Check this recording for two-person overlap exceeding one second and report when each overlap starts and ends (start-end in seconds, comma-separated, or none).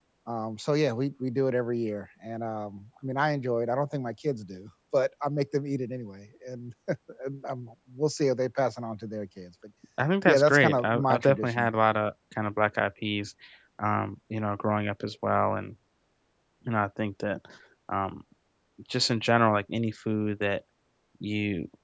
10.3-11.7